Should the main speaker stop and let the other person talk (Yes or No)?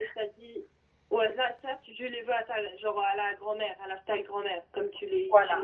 Yes